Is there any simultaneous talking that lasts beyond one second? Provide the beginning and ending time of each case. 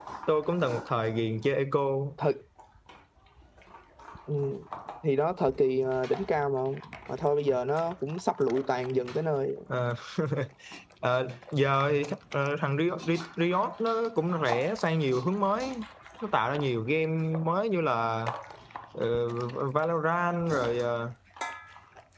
none

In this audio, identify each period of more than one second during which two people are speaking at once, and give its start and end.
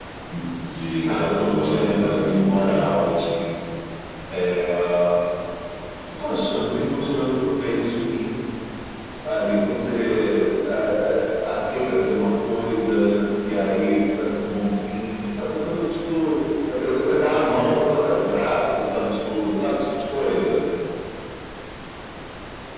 1.0-2.8

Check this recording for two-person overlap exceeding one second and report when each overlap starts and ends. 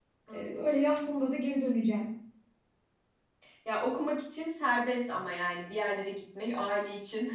none

